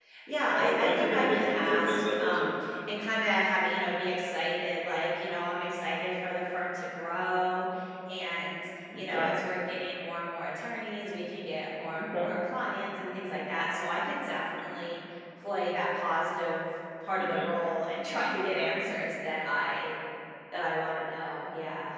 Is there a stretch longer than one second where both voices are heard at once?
Yes, from 0.5 s

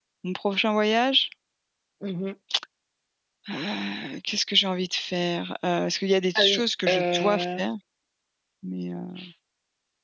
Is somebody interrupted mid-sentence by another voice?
Yes, from 6.3 s

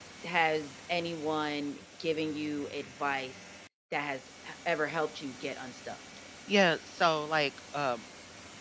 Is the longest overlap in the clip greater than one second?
No

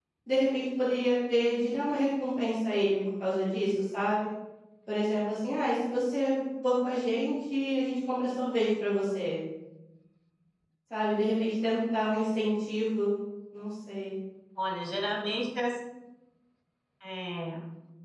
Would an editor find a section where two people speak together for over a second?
No

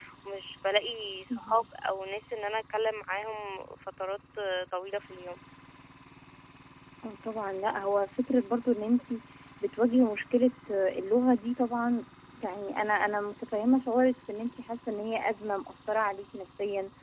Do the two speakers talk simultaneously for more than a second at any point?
No

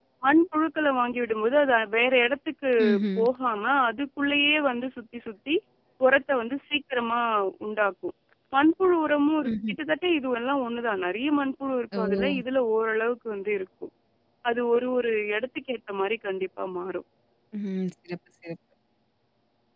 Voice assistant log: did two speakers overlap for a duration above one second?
No

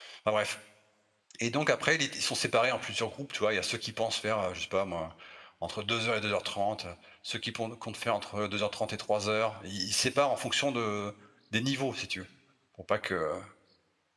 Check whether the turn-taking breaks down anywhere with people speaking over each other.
No

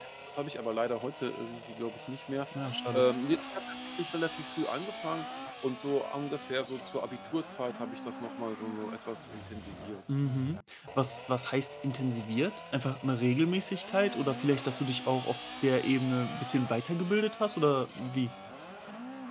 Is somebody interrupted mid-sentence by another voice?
No

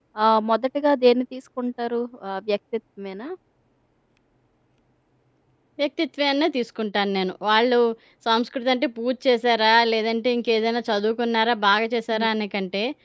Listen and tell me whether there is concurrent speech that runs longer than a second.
No

